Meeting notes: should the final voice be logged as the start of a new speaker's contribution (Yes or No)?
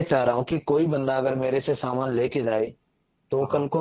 No